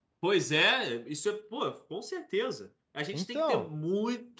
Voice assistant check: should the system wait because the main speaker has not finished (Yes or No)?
Yes